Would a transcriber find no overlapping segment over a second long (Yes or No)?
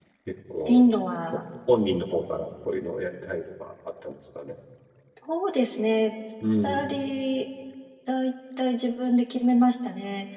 Yes